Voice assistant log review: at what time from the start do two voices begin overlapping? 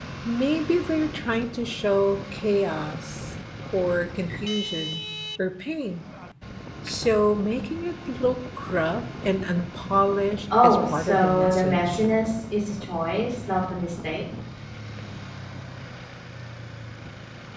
10.5 s

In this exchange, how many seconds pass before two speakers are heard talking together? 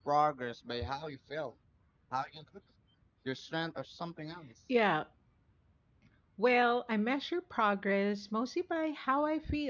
none

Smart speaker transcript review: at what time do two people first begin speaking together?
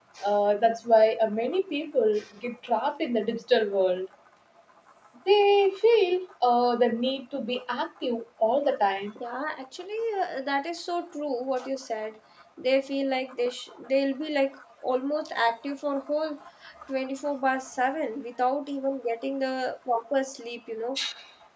none

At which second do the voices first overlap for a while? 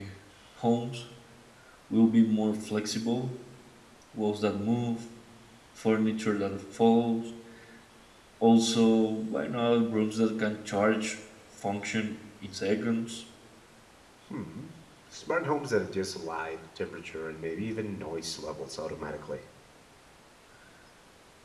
none

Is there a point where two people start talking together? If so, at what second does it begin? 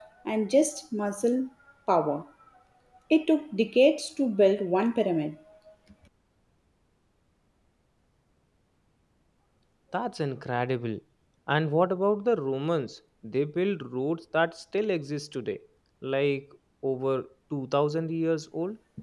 none

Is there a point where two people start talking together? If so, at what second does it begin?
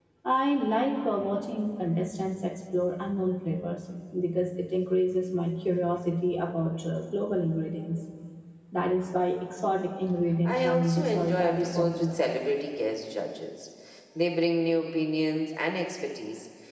10.4 s

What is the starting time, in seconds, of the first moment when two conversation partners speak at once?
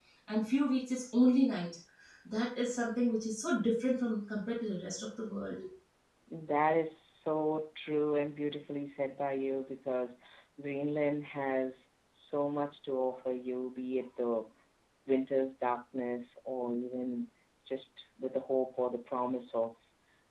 none

